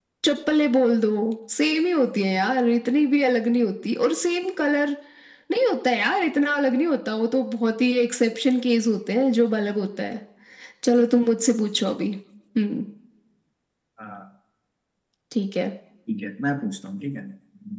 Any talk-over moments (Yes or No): No